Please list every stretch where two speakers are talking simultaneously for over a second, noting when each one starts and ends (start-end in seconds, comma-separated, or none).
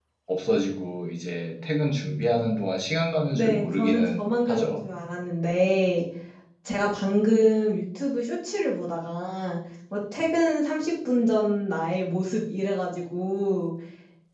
3.3-4.8